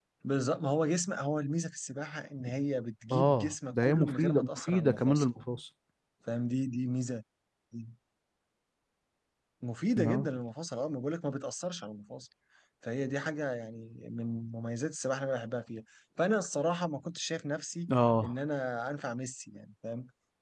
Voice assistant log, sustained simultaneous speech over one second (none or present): present